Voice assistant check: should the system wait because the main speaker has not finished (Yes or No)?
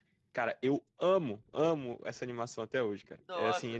Yes